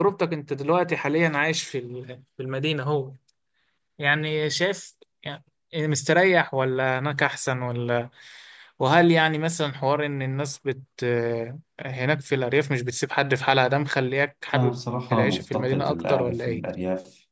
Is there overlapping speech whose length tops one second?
Yes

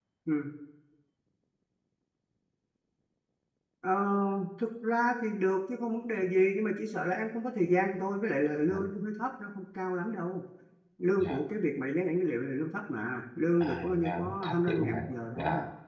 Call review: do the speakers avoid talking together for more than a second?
No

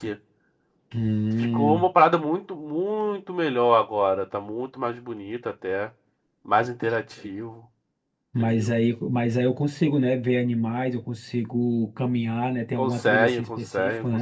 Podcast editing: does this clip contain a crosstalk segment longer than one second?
Yes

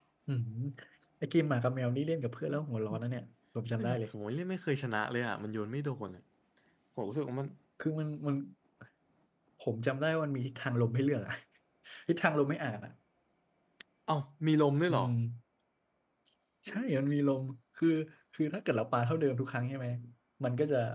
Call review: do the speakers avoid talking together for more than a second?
Yes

